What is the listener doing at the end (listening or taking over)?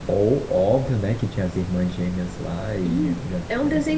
taking over